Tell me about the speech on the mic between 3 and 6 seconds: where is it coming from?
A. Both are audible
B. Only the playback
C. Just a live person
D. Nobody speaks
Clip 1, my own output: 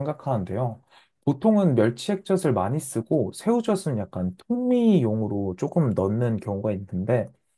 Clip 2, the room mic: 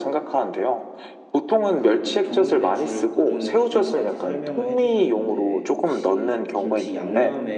A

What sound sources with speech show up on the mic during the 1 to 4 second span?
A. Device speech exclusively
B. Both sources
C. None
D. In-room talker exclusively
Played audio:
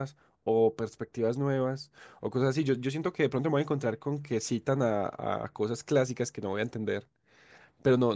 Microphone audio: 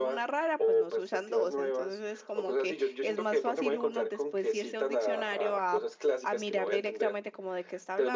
B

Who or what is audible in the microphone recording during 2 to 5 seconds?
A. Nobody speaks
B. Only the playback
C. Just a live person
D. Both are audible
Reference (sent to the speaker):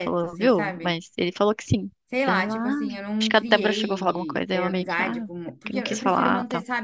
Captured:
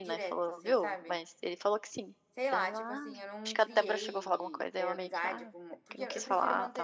B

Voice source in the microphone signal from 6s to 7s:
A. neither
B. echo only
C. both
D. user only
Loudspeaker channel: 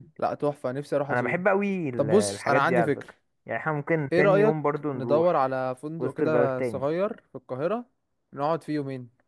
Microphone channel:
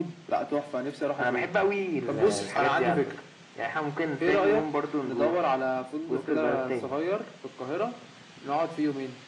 B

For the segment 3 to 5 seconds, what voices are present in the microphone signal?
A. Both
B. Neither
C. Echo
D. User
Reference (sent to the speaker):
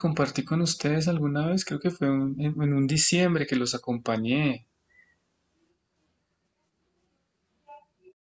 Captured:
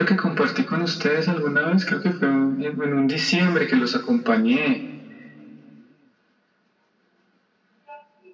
C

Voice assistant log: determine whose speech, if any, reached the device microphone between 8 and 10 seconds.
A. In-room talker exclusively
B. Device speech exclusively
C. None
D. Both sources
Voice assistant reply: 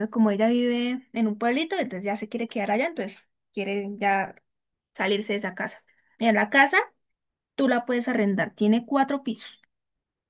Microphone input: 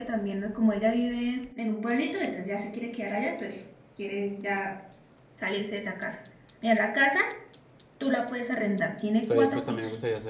D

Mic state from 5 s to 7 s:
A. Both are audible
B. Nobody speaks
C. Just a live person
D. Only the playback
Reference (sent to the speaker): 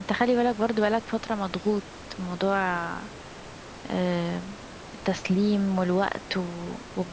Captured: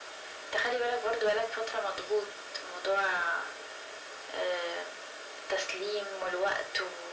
D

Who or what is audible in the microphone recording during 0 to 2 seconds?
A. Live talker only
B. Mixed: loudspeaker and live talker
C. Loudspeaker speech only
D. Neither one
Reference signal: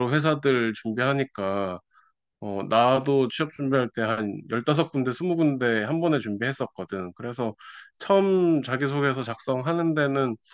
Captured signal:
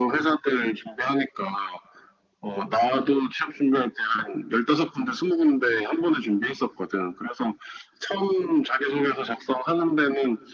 C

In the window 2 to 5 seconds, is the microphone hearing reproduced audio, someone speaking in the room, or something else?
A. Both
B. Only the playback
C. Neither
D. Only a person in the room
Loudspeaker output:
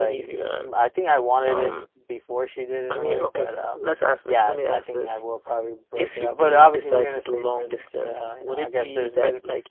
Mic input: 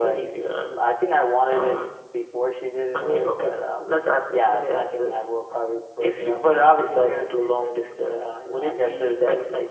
B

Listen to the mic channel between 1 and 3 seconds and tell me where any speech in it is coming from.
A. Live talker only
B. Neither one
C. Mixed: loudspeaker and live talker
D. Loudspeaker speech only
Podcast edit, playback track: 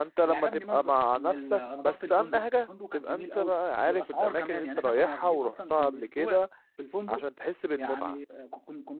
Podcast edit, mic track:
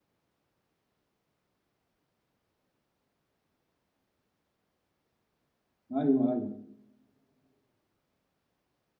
B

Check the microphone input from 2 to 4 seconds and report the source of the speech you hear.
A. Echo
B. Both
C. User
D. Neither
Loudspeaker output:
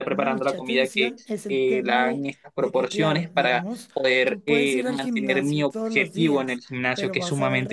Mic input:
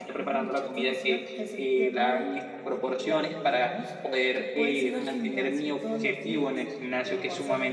A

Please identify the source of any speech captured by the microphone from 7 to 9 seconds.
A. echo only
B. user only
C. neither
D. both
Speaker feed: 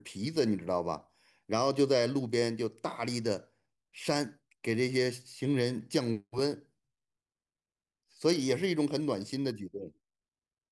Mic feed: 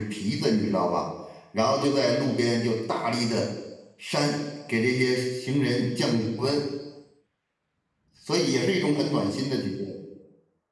A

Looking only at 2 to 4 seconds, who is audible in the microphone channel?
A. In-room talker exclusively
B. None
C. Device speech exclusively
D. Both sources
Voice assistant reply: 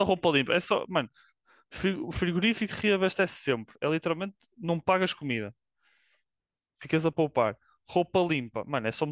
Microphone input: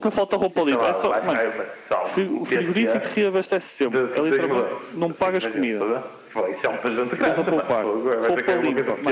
D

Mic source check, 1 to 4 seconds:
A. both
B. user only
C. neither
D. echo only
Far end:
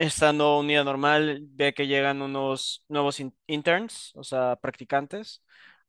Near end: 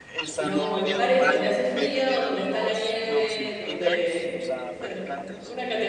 A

